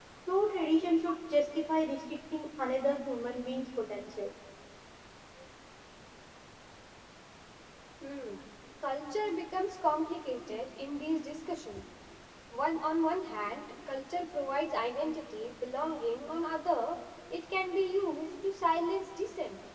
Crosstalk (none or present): none